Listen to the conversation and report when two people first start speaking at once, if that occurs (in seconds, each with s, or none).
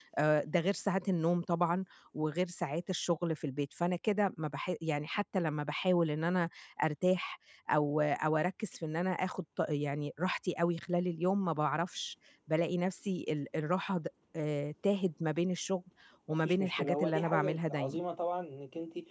16.4 s